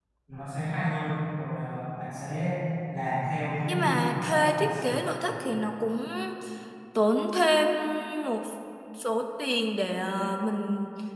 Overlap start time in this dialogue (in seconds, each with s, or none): 3.7 s